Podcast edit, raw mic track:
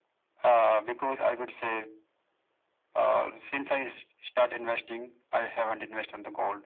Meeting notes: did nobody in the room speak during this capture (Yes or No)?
Yes